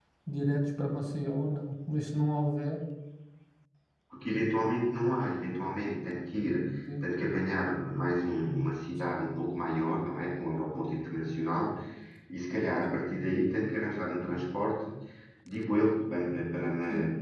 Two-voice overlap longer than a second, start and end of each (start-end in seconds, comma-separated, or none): none